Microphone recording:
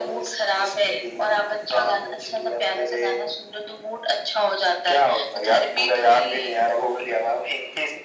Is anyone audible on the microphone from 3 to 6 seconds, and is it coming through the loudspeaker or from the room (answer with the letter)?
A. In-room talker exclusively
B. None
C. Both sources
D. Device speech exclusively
D